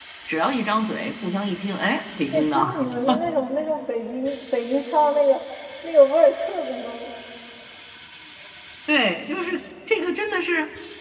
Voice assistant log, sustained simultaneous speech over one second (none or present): none